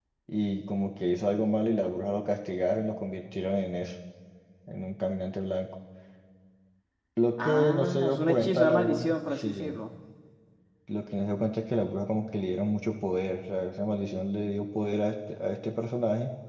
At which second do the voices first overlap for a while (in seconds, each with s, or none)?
7.4 s